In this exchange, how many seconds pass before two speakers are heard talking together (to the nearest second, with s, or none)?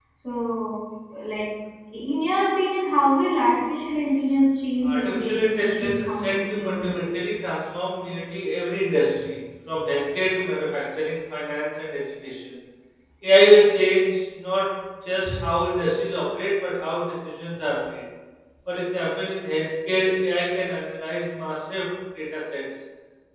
5 s